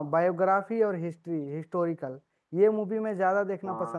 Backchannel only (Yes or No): Yes